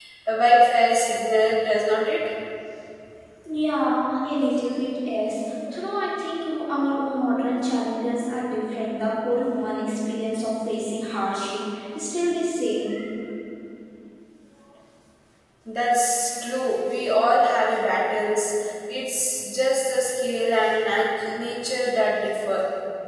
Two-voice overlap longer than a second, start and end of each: none

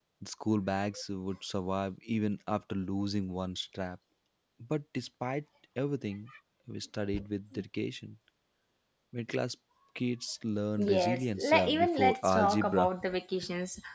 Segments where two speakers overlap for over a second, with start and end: 10.8-12.9

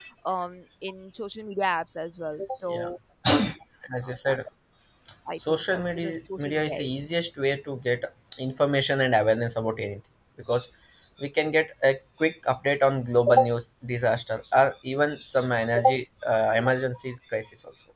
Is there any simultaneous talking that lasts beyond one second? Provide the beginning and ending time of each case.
5.5-6.9

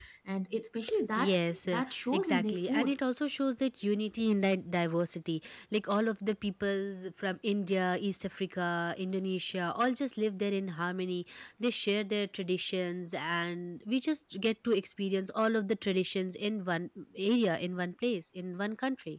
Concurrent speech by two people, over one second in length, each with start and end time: 1.2-2.9

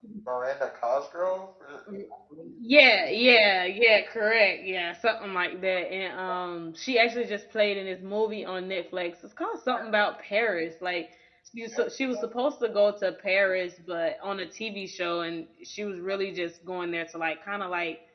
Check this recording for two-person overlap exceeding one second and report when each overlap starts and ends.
none

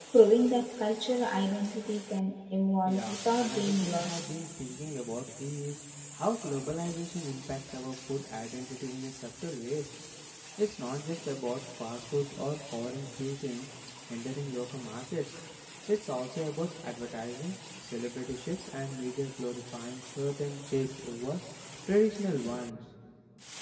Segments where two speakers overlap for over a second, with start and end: 2.8-4.2

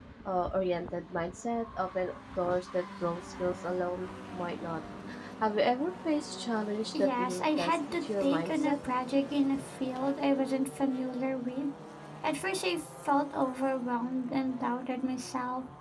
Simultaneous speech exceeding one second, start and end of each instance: 6.9-8.7

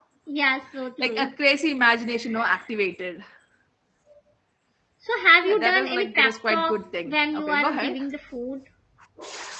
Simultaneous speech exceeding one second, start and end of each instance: 5.4-8.0

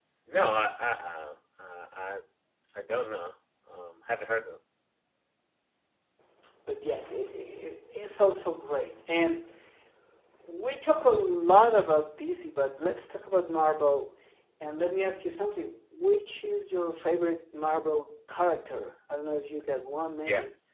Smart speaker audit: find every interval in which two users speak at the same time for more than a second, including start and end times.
none

